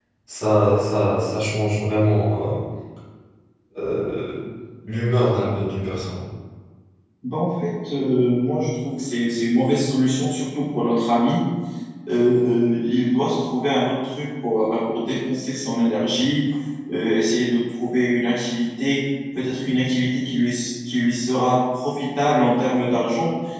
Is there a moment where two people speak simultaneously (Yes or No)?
No